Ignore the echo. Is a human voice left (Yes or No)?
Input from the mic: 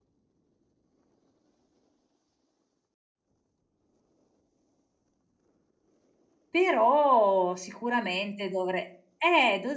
Yes